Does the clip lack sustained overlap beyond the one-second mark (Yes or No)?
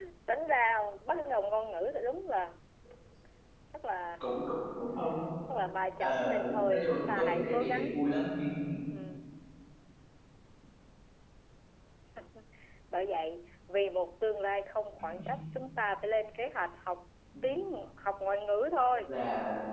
No